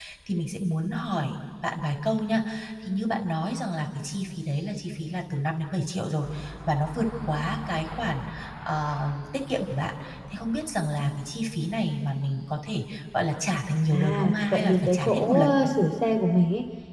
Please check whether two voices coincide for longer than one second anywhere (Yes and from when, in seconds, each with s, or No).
Yes, from 13.9 s